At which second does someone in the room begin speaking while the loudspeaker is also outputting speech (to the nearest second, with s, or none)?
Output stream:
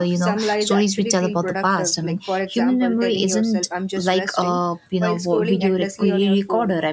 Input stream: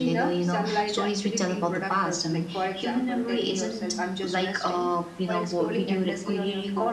none